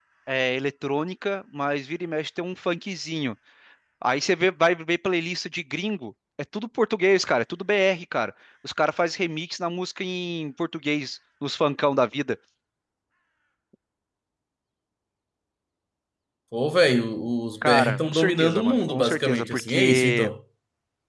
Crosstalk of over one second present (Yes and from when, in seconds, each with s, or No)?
Yes, from 17.6 s